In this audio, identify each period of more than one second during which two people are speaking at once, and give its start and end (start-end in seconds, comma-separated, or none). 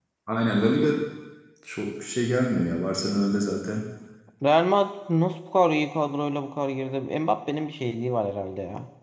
none